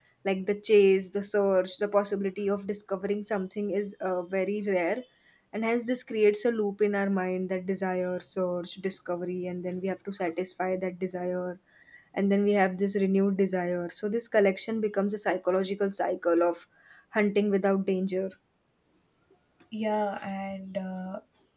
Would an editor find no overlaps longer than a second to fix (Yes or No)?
Yes